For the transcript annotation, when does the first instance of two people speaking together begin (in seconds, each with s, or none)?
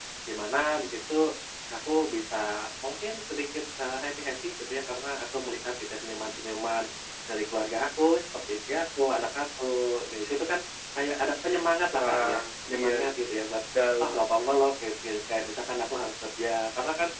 11.9 s